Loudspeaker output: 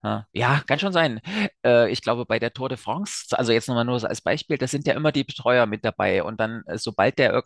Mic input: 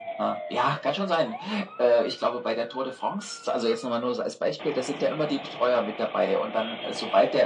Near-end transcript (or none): none